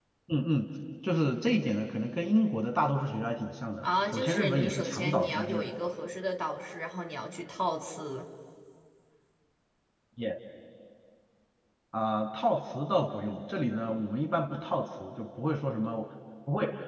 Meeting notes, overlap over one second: present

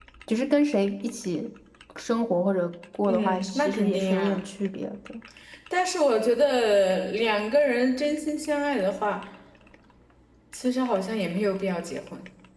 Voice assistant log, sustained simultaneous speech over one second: present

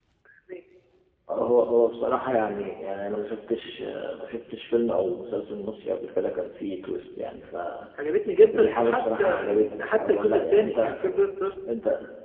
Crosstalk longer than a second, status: present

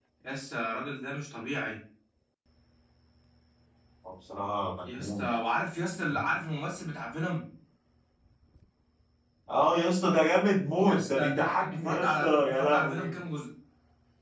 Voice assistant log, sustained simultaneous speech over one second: present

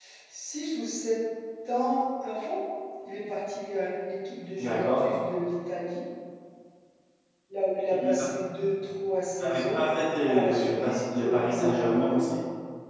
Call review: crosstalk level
present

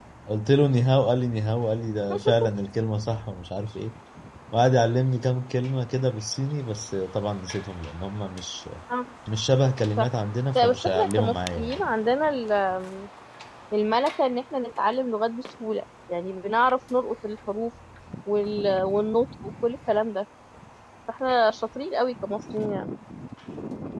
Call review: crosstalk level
present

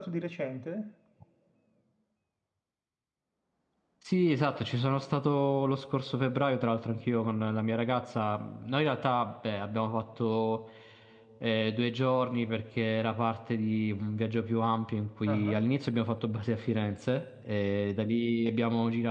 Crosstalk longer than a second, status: none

